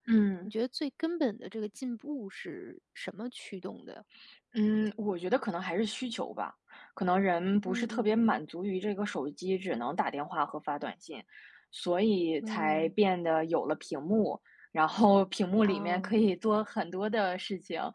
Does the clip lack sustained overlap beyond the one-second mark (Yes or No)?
Yes